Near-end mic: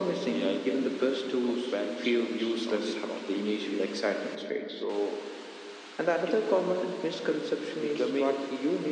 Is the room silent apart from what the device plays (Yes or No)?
Yes